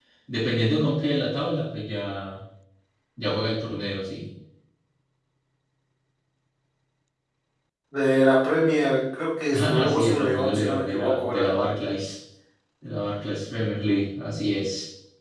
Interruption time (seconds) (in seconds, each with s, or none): 9.5 s